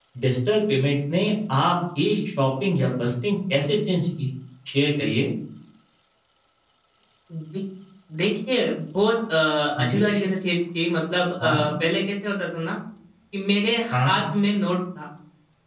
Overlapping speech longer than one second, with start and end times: none

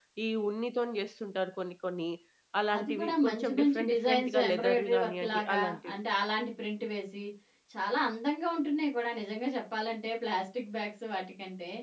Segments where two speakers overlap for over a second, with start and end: 2.8-5.9

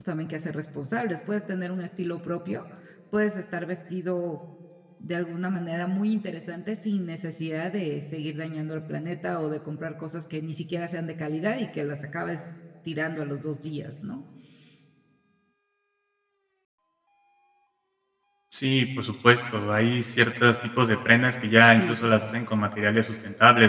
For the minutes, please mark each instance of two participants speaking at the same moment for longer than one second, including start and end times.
none

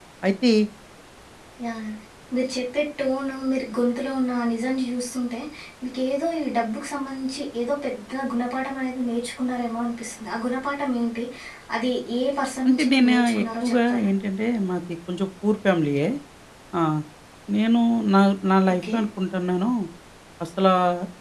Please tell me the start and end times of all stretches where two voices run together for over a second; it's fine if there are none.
12.7-14.1

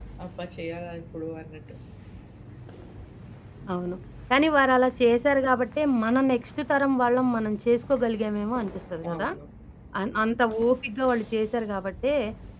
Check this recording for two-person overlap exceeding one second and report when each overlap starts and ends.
none

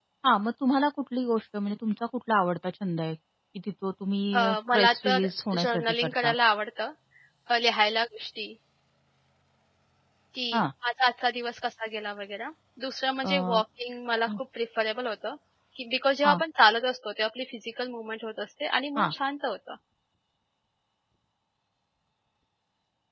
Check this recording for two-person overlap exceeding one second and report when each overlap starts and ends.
4.3-6.3

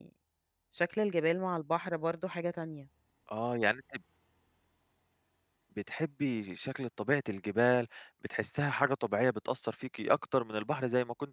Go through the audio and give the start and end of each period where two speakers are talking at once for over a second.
none

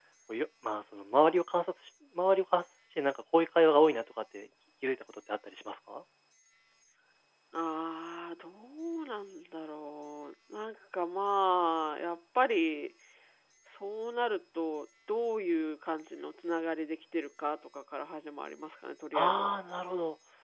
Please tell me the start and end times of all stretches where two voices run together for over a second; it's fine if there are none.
none

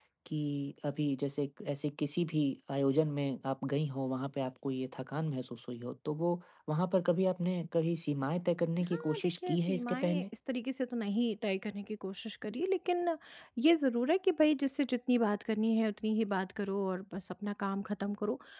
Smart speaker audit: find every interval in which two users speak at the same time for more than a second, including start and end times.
8.9-10.2

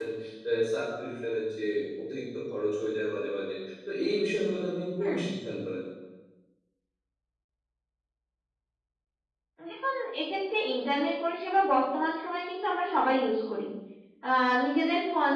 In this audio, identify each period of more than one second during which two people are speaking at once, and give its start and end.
none

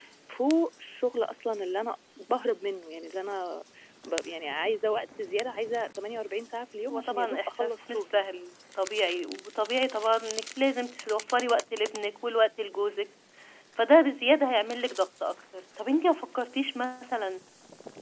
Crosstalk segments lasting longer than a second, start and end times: 6.9-8.2

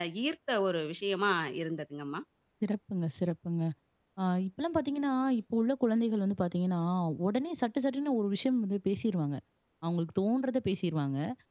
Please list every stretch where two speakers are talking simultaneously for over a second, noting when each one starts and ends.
none

